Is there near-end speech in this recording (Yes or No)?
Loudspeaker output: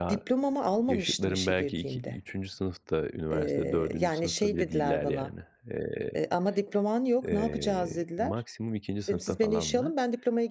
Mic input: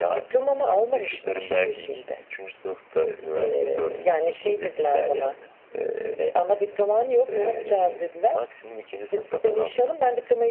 No